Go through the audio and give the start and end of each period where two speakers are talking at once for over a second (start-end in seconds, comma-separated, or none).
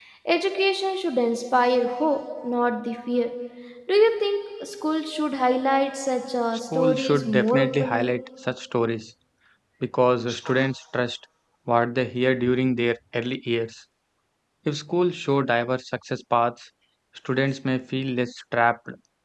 6.8-8.1